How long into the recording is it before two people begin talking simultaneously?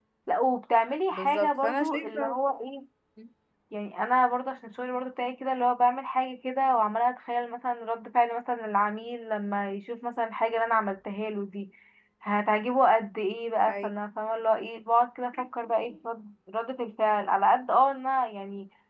1.1 s

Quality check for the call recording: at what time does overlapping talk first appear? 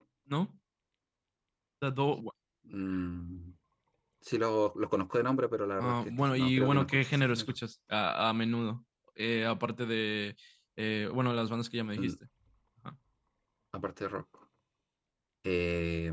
5.8 s

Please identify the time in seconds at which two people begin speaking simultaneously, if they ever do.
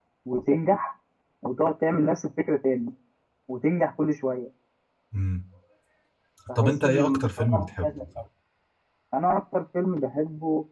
6.6 s

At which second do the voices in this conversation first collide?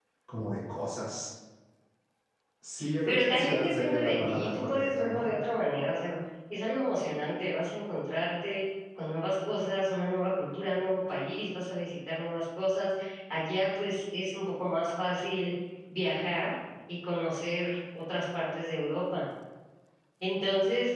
3.1 s

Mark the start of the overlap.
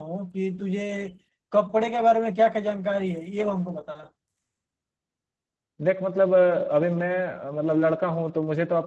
none

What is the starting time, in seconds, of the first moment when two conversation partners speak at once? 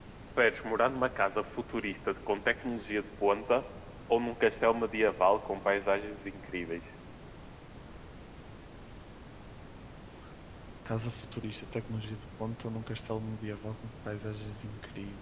none

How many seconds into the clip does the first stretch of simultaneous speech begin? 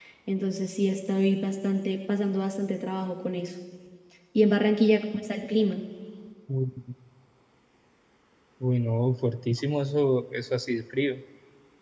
none

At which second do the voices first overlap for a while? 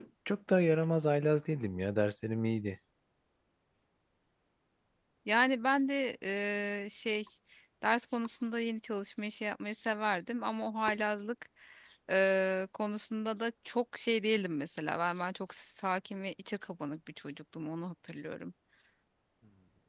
none

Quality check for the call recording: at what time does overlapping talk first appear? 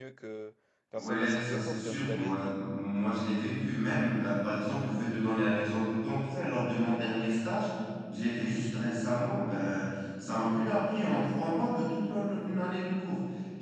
1.0 s

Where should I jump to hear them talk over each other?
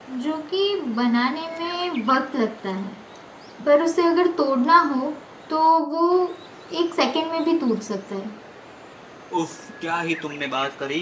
none

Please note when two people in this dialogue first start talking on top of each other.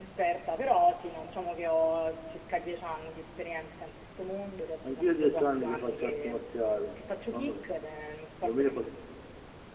4.8 s

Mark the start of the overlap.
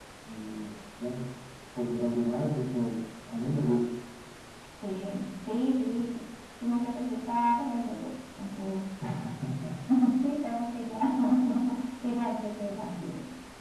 none

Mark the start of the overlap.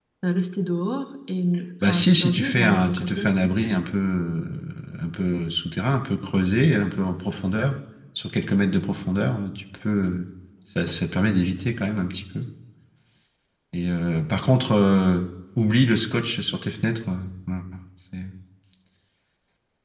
1.8 s

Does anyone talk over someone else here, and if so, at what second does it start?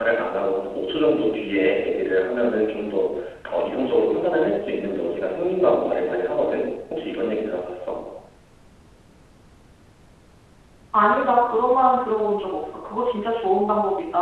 none

